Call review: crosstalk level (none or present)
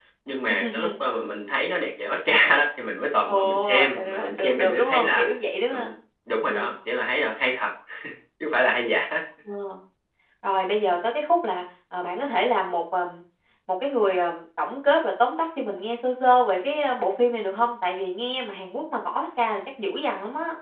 present